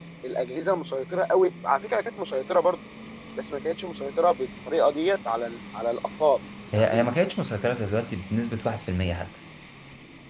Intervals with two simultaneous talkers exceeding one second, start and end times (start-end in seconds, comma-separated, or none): none